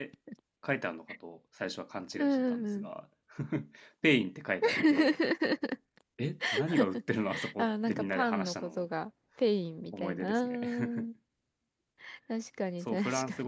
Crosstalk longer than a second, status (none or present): present